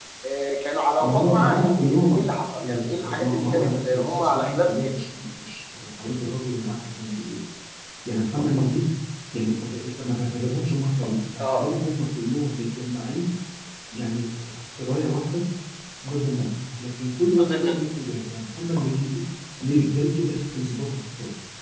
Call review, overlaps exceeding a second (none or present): present